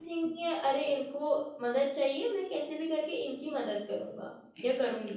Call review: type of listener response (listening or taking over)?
taking over